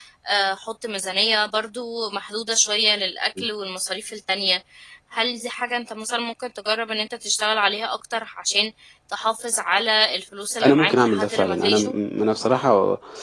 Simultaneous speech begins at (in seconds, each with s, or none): 10.6 s